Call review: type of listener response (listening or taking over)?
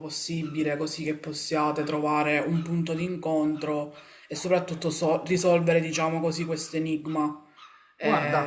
taking over